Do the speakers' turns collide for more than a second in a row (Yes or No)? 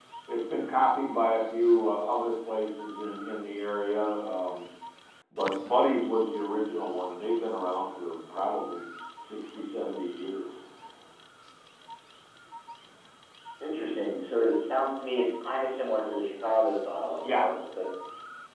No